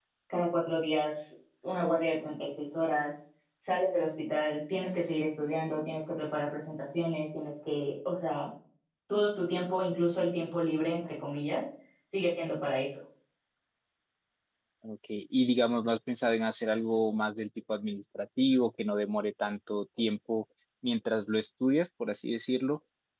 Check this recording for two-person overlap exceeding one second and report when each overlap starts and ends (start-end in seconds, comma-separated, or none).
none